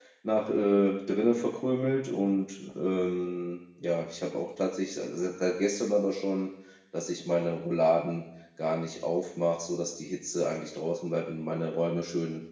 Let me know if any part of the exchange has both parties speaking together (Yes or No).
No